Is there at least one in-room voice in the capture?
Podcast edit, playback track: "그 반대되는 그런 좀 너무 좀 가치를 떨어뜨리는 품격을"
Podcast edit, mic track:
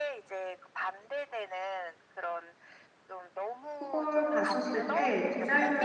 Yes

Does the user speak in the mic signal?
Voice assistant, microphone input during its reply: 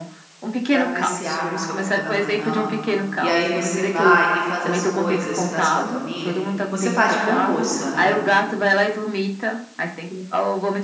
Yes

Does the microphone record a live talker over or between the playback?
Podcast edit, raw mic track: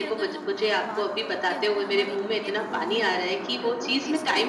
Yes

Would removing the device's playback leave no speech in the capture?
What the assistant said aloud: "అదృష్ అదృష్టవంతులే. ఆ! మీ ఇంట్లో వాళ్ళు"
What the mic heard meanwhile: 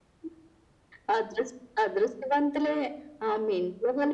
Yes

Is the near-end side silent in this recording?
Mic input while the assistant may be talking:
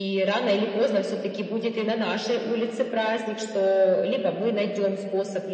Yes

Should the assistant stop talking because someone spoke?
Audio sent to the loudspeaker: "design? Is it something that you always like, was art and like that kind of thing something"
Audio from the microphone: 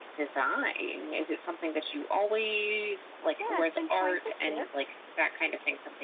Yes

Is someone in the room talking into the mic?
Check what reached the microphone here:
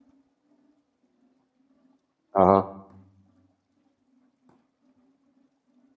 Yes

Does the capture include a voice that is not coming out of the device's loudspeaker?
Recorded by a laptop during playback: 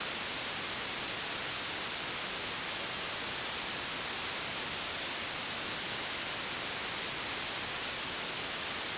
No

